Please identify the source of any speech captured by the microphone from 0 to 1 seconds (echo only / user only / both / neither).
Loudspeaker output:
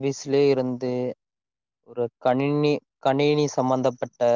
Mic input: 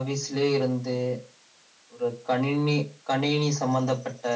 echo only